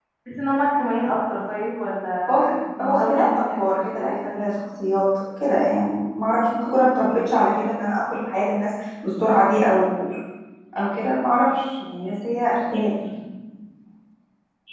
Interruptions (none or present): present